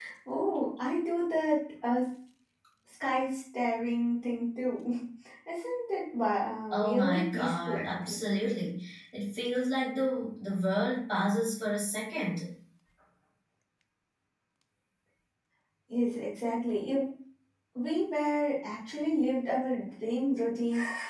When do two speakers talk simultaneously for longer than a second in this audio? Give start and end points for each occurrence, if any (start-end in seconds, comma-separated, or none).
6.7-8.3